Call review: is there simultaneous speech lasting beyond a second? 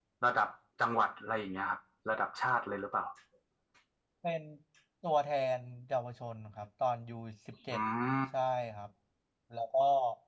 No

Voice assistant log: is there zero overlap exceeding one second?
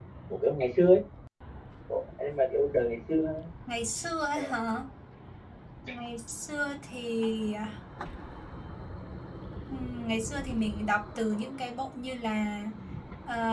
Yes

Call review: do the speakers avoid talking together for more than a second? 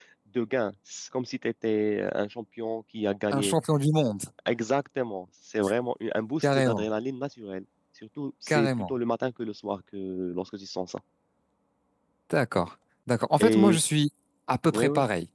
Yes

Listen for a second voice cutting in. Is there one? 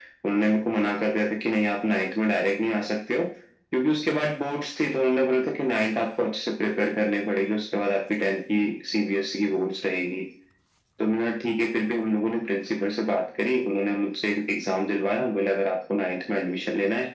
No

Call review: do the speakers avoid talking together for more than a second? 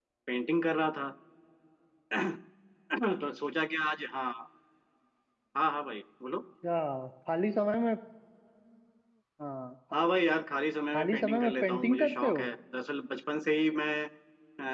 No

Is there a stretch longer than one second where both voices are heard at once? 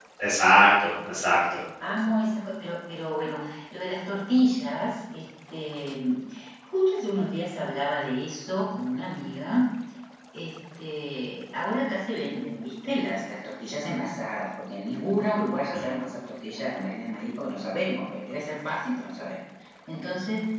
No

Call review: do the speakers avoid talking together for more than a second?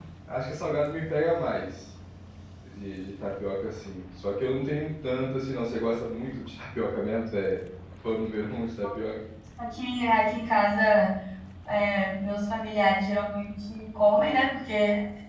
Yes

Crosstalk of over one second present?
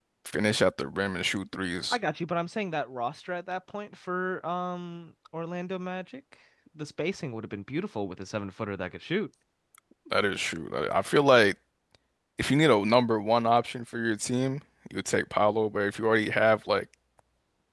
No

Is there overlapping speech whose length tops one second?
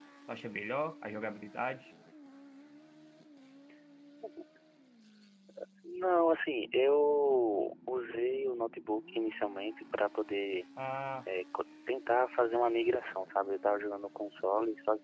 No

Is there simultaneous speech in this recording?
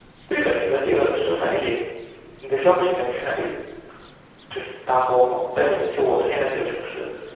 No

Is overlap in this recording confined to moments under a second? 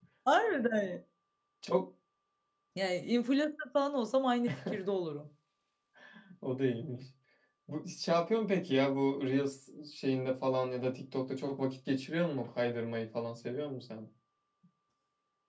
Yes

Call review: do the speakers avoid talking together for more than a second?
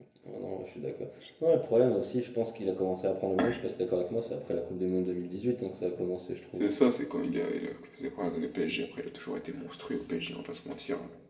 Yes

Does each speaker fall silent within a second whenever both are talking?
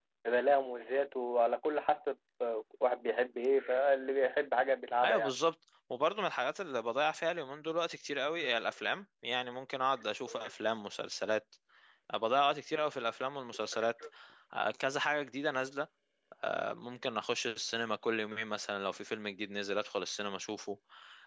Yes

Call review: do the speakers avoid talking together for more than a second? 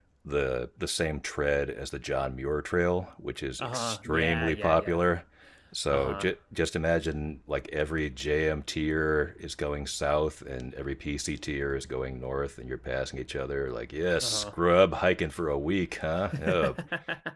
No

